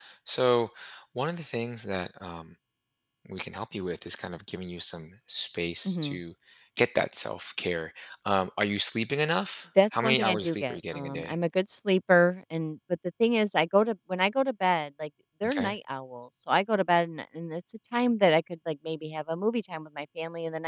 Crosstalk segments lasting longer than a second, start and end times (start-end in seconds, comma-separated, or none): 10.0-11.3